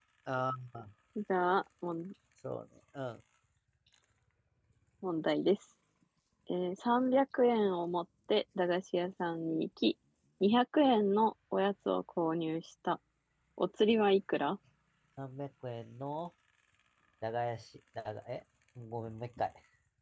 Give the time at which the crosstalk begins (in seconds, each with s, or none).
none